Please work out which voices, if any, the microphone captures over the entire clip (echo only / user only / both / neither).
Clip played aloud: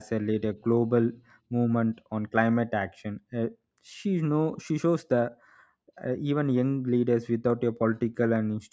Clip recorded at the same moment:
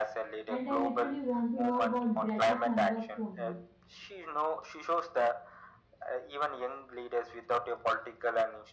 both